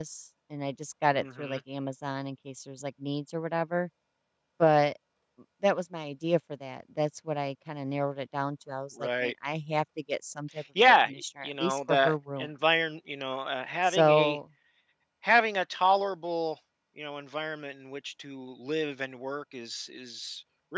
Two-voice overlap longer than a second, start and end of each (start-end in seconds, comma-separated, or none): 10.8-12.5